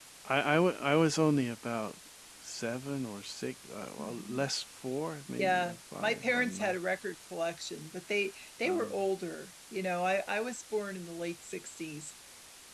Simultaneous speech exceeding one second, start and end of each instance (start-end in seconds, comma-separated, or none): 5.4-6.7